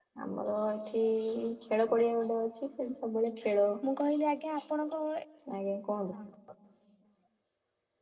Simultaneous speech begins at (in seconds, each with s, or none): none